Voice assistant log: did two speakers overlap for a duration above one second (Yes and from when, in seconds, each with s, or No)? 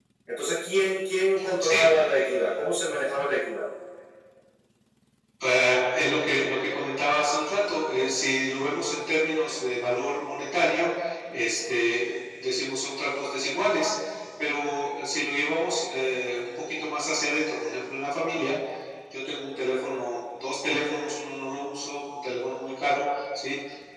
No